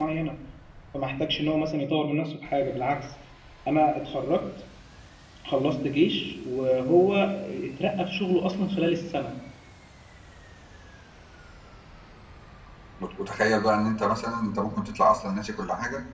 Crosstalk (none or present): none